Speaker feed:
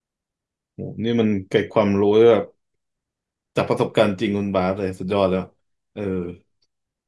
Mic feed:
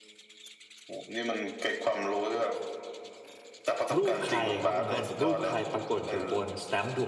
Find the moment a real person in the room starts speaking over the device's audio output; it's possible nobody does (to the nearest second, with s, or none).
4 s